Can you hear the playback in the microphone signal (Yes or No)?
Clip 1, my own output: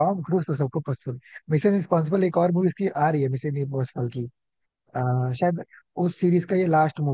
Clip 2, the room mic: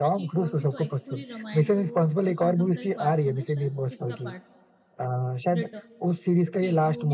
Yes